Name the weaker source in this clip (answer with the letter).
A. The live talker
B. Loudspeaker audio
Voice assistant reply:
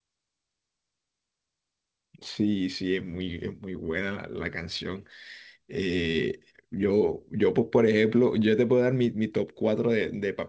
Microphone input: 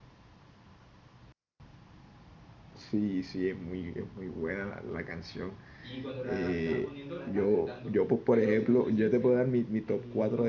A